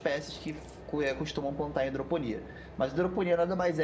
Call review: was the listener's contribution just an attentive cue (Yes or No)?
Yes